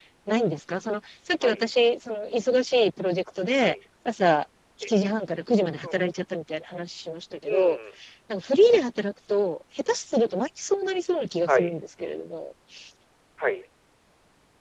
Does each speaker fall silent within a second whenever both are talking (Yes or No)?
Yes